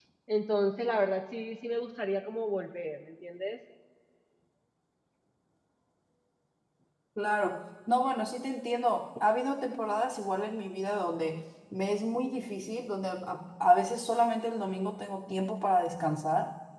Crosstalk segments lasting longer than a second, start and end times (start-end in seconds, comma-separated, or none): none